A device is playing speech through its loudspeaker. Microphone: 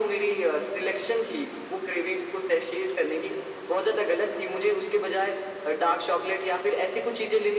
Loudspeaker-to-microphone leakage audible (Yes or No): Yes